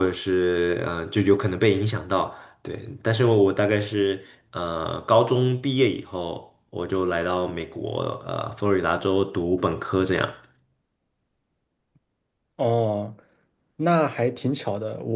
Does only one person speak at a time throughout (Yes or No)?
Yes